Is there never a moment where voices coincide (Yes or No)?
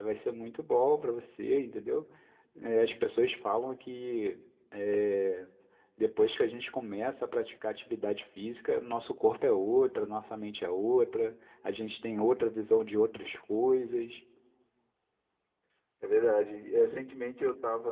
Yes